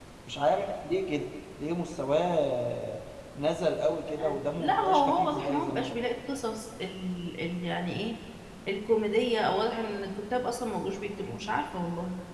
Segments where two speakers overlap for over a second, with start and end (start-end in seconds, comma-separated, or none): 4.2-5.9